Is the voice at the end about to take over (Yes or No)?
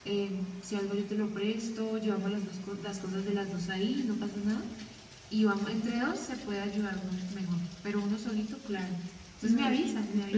Yes